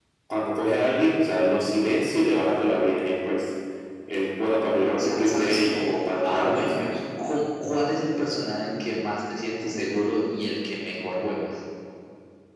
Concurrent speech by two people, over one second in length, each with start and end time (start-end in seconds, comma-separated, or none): 5.0-6.9